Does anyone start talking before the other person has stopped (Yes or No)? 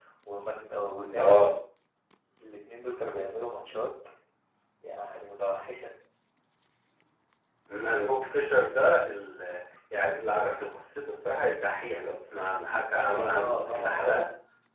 Yes